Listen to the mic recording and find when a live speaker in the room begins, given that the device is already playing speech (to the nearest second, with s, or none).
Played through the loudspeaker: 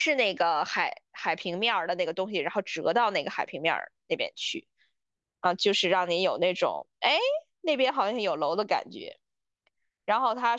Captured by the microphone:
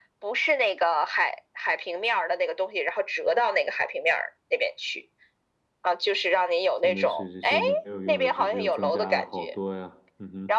7 s